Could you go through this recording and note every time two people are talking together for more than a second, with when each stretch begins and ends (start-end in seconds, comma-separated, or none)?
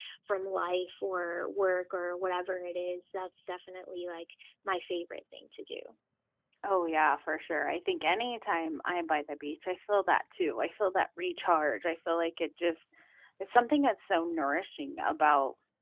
none